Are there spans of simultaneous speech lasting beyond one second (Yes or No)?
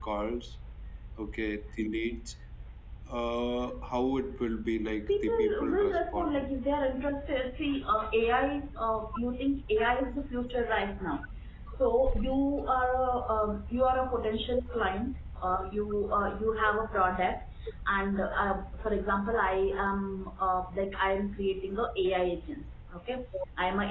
Yes